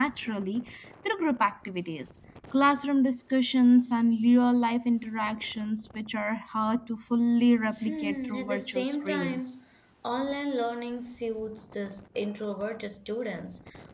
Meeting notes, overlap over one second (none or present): present